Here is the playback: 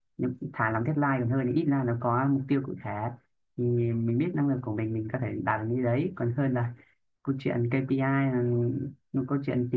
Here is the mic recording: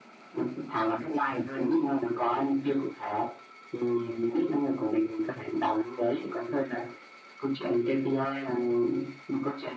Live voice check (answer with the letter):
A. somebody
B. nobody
B